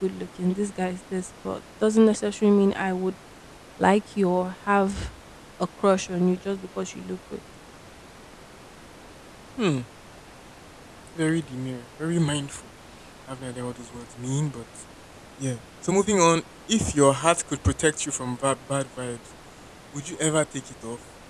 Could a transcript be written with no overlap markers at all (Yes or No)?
Yes